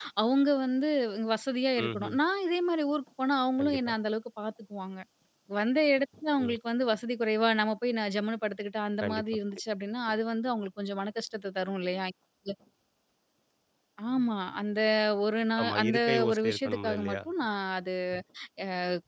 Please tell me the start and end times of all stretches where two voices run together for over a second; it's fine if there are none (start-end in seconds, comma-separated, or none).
15.6-17.2